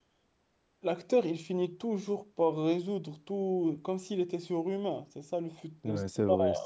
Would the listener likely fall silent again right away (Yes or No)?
No